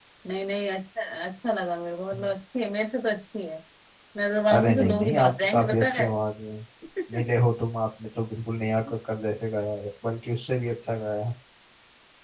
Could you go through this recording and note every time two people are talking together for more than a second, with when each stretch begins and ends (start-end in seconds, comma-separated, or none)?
4.5-6.1